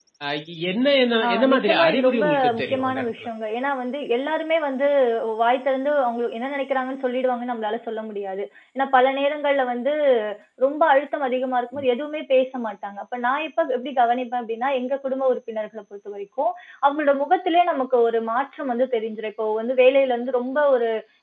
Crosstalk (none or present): present